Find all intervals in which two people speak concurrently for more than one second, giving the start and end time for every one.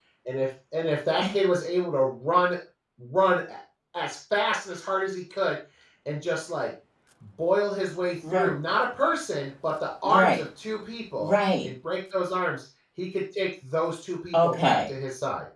none

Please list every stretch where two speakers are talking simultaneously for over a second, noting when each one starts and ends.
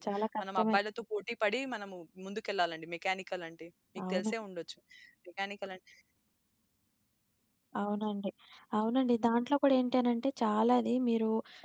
none

